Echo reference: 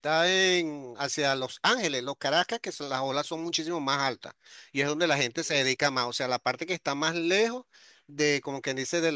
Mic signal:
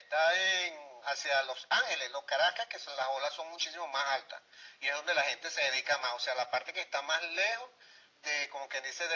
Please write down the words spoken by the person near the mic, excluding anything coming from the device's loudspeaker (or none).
none